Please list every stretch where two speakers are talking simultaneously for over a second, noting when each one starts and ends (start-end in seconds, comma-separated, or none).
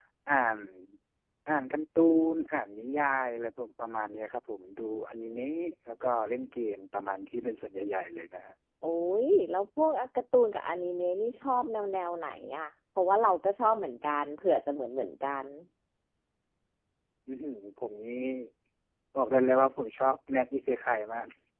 none